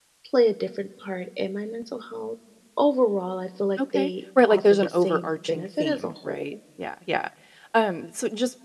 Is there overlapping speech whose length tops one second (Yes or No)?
Yes